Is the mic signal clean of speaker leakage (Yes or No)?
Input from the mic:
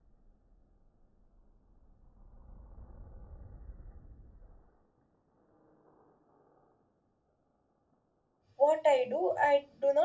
Yes